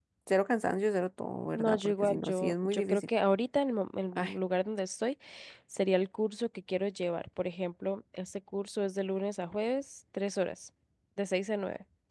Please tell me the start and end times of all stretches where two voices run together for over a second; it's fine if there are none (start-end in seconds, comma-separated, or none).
1.6-3.0